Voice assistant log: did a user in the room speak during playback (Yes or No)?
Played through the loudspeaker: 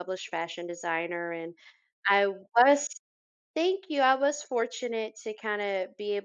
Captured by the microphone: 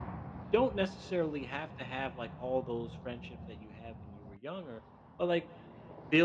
Yes